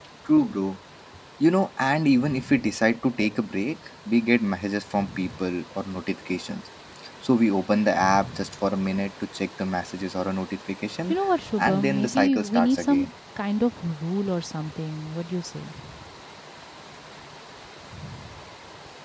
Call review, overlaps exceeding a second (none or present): present